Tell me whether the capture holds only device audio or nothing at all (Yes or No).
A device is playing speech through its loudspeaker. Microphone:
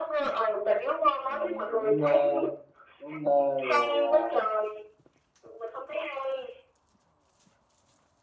No